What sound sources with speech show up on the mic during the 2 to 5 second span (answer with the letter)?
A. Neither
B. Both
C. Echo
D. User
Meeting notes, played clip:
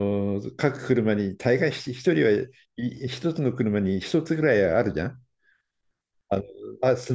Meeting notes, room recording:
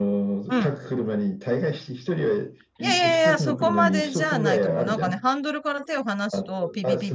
B